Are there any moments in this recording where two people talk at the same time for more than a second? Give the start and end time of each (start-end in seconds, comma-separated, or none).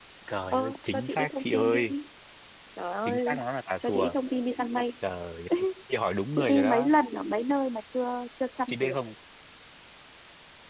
0.5-1.9